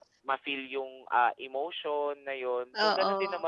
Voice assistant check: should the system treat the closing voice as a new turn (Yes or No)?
No